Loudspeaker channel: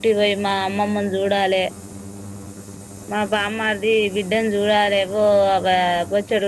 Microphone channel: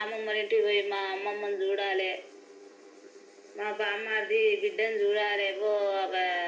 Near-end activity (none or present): none